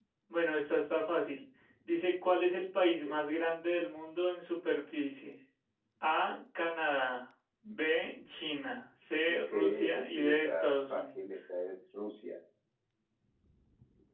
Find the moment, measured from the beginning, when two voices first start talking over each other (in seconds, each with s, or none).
9.3 s